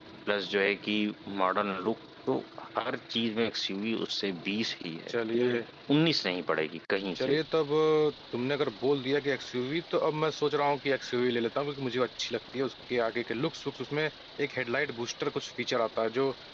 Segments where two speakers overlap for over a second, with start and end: none

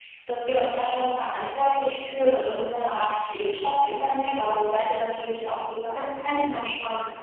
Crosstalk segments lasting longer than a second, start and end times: none

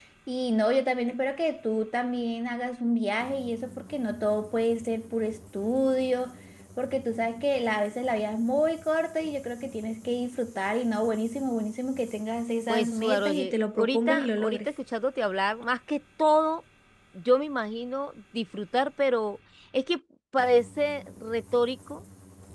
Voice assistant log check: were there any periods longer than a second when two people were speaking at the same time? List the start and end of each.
12.7-14.7

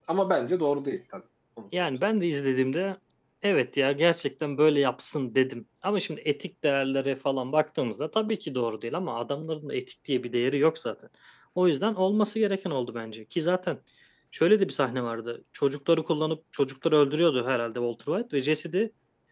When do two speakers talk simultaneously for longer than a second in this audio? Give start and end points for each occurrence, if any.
none

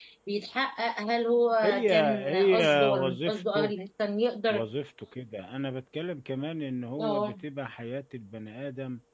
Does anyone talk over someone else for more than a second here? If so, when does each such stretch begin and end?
1.6-3.7

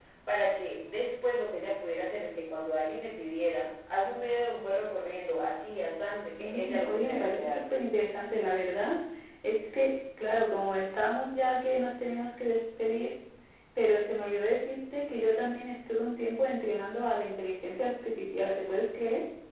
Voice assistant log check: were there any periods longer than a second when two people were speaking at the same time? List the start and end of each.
6.4-7.6

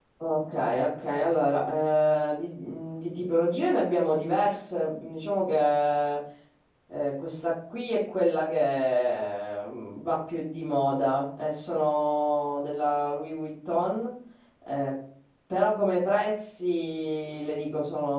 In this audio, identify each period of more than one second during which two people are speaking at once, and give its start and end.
none

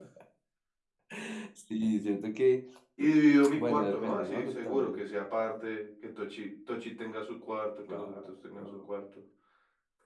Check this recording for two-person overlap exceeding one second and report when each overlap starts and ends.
3.5-5.0

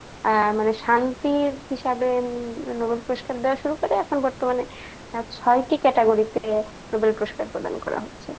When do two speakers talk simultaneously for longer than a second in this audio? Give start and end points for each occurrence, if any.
none

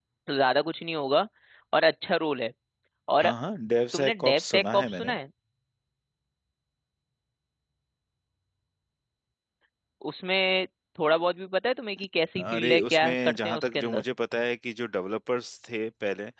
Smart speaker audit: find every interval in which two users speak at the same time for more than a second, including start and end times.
3.9-5.2, 12.4-14.0

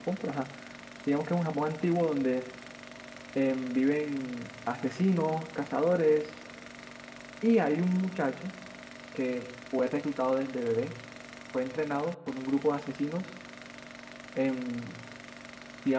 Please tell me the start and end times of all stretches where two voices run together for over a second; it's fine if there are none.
none

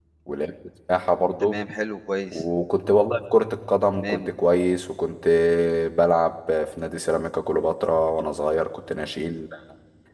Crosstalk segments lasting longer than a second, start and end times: none

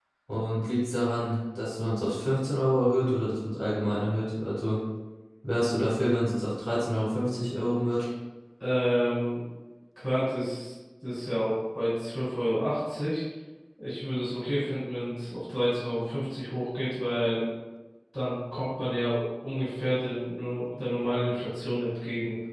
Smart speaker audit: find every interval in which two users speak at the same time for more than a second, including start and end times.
none

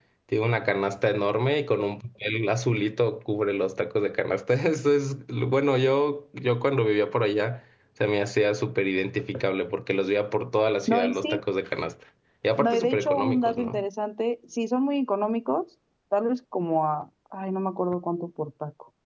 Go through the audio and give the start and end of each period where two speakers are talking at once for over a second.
12.6-13.8

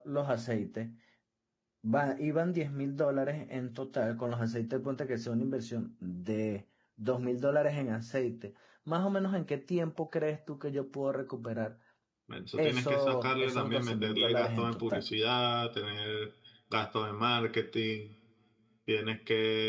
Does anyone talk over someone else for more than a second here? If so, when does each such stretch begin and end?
12.6-15.1

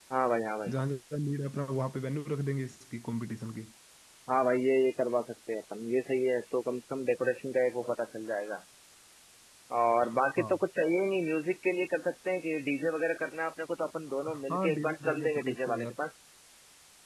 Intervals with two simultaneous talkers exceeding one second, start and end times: 14.3-15.9

